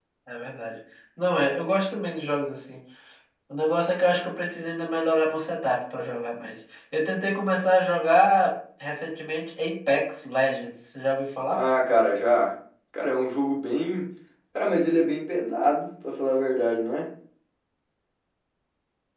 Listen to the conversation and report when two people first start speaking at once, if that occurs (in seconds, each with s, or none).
none